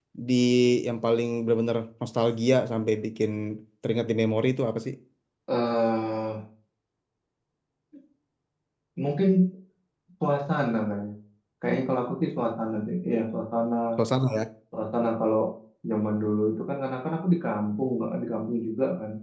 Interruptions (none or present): none